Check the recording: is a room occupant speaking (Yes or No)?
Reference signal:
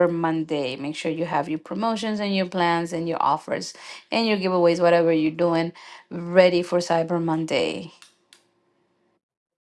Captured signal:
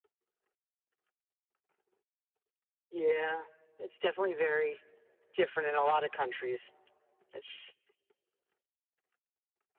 Yes